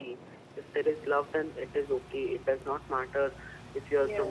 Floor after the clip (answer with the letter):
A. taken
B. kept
A